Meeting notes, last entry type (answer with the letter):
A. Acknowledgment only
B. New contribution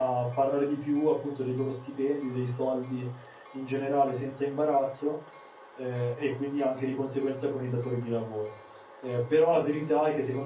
A